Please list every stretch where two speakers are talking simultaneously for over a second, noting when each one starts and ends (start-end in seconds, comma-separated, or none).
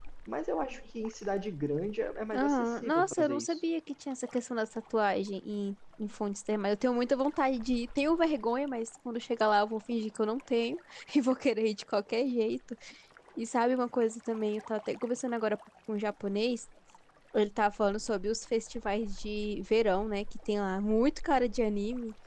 2.3-3.6